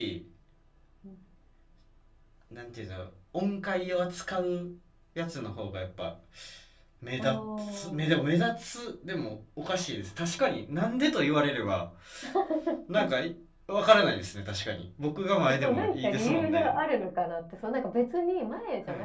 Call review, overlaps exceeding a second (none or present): present